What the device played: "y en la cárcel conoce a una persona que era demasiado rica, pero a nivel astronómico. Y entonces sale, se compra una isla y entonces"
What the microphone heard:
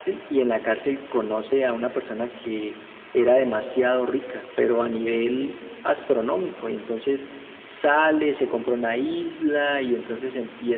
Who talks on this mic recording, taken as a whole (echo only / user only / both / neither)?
echo only